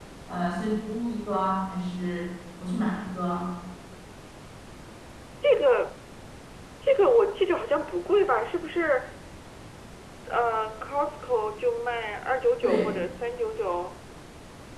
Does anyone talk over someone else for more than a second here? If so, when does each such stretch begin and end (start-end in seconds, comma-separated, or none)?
none